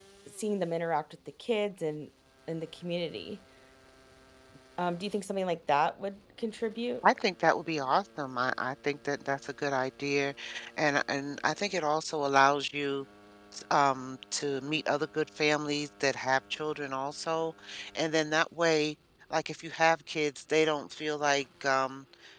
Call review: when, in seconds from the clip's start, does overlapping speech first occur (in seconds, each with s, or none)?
none